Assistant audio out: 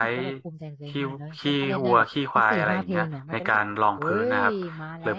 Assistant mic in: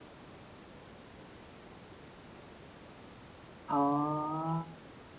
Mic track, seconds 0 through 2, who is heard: neither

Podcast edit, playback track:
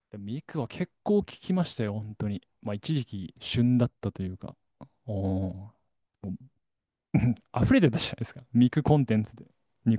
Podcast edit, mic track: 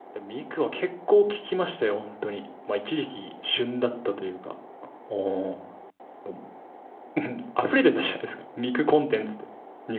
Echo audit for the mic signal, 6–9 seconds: echo only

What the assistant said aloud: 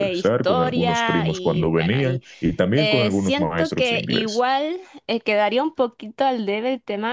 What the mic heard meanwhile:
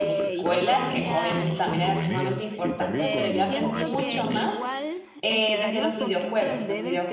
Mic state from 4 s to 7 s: both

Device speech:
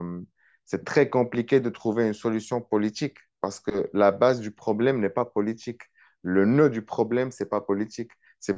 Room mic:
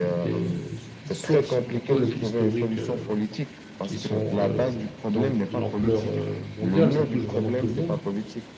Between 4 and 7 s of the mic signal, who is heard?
both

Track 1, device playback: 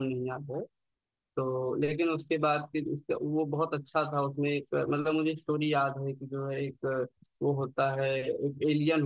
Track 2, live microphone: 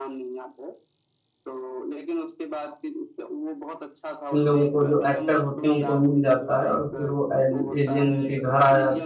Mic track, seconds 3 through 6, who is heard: both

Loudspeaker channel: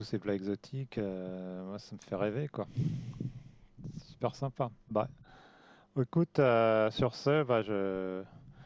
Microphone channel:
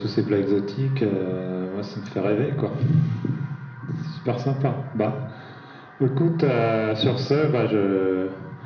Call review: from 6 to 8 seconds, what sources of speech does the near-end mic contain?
echo only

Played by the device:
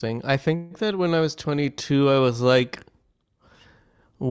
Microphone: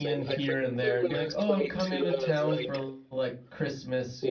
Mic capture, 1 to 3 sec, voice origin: both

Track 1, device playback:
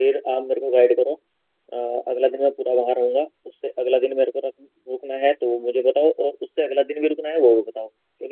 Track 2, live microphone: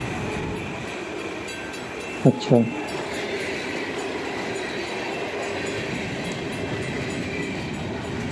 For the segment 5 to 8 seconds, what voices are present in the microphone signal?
neither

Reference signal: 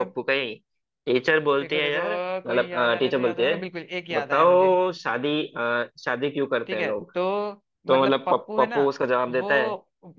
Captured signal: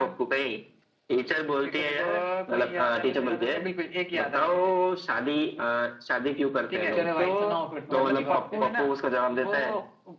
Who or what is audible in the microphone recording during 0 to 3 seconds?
echo only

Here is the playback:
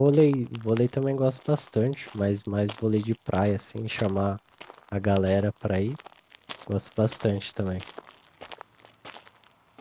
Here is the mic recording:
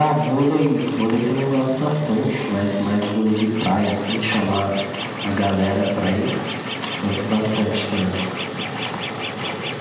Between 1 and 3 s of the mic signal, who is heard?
echo only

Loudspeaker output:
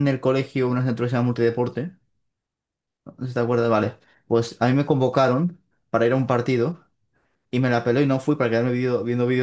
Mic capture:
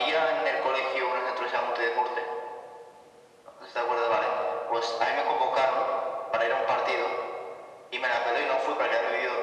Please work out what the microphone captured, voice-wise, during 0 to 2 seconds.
echo only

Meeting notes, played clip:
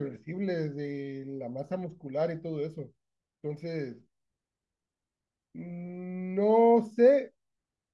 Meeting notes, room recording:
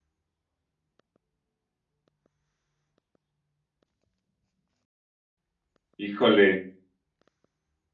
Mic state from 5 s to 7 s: user only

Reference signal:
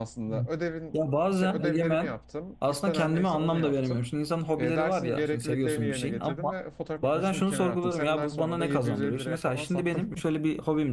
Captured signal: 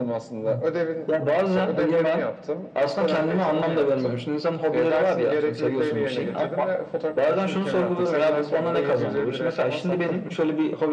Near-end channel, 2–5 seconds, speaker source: echo only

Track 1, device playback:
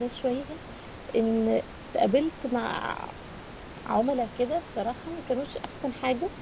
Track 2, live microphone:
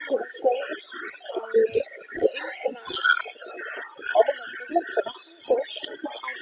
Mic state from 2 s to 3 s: echo only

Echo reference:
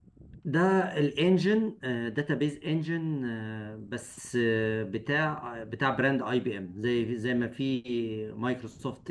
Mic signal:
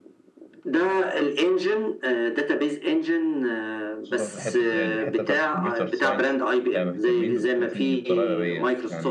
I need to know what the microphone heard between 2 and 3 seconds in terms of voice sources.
echo only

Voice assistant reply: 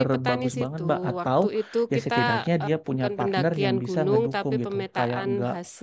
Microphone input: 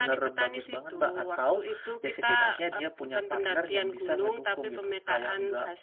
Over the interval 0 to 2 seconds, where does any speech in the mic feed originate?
echo only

